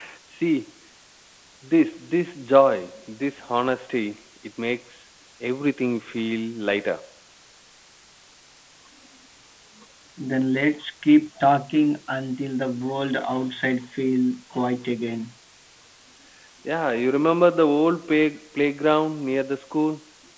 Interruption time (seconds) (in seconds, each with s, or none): none